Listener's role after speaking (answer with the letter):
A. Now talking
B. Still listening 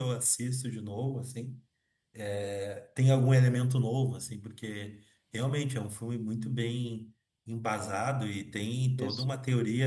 B